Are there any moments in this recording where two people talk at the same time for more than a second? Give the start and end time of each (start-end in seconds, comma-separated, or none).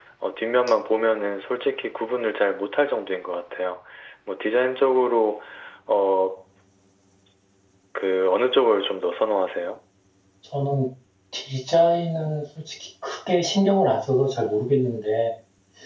none